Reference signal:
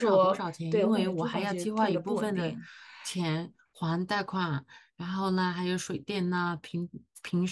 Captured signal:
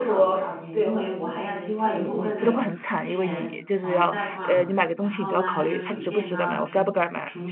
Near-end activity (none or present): present